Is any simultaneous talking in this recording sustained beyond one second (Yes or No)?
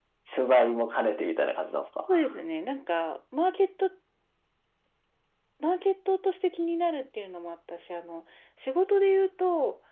No